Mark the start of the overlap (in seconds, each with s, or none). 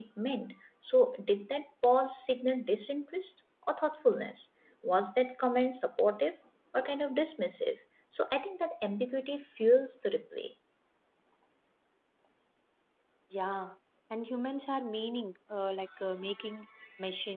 none